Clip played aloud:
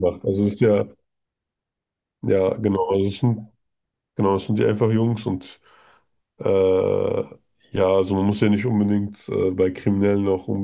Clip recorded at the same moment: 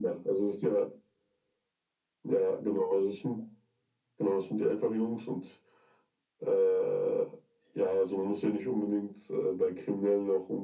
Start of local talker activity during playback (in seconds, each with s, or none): none